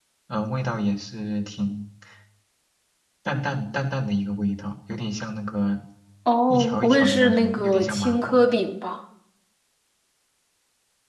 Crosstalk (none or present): present